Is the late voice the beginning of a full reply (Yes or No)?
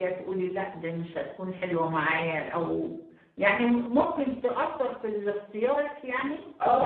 Yes